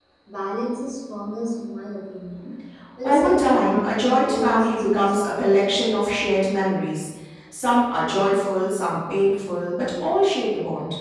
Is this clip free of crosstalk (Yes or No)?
No